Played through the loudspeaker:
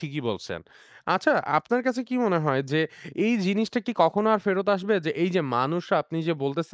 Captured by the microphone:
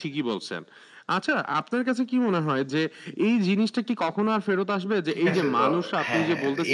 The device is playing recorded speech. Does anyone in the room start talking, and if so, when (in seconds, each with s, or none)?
5.1 s